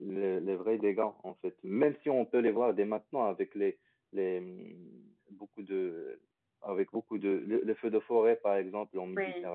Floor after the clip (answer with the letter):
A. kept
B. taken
A